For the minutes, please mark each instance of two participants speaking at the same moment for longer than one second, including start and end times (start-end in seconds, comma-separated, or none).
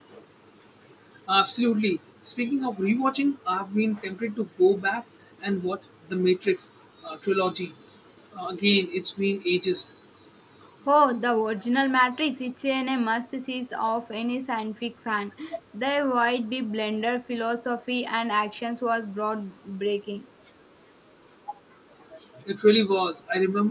none